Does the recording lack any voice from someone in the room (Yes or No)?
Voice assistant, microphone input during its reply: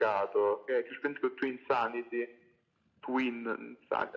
Yes